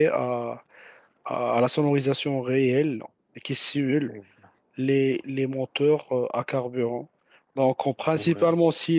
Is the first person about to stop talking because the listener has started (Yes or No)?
No